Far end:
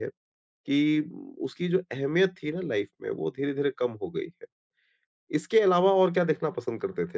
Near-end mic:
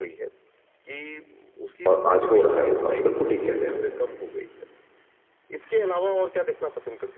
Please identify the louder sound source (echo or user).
user